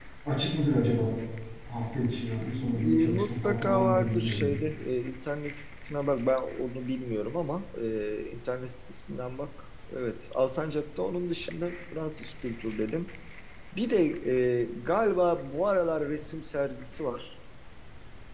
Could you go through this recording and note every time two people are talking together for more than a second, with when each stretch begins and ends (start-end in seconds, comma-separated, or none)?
2.6-4.5